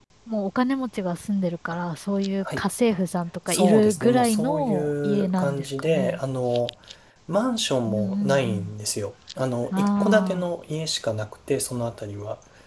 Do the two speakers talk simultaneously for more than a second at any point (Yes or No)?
Yes